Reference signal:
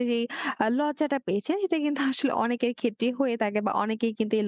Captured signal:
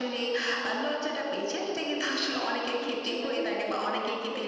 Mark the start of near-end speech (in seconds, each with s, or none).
2.7 s